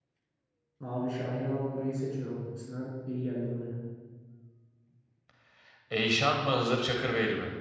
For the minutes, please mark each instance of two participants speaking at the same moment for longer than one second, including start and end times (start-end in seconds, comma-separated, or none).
none